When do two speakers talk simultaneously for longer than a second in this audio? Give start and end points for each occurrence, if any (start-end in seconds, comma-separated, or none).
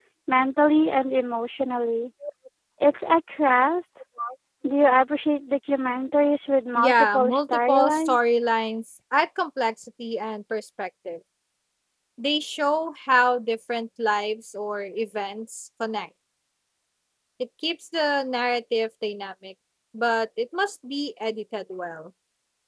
6.8-8.2